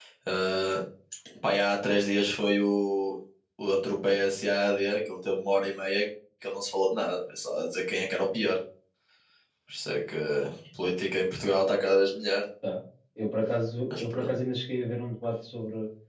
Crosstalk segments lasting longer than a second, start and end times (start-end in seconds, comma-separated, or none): none